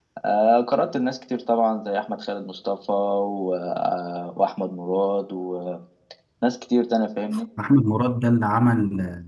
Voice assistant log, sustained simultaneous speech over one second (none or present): none